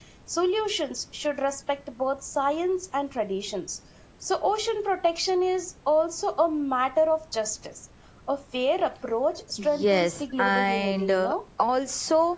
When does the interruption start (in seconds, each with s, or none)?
9.6 s